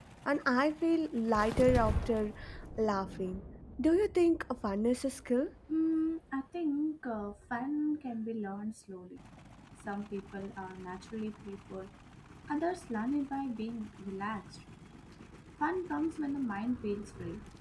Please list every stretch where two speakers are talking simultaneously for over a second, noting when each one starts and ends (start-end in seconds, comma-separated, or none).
none